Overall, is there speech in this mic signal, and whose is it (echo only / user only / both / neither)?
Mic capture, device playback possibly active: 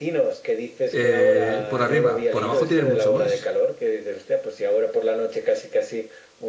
both